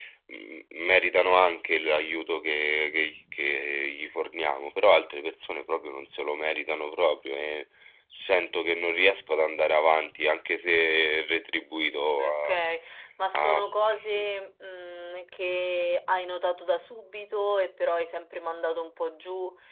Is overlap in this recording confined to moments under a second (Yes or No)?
Yes